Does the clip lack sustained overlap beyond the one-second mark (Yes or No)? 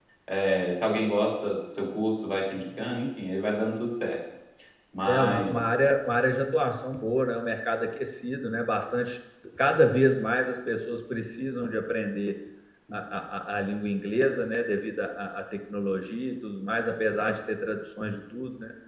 Yes